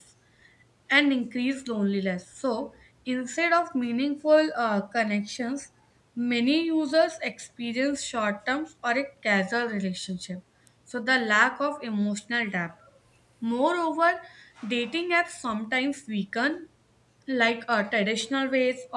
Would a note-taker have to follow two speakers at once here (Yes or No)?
No